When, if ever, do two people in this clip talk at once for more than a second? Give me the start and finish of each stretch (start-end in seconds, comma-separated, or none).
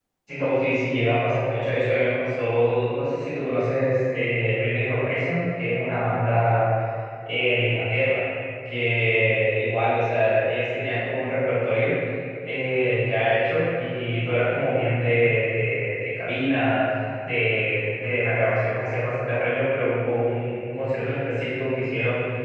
none